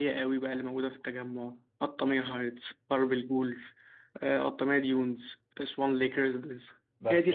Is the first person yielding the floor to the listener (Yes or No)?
Yes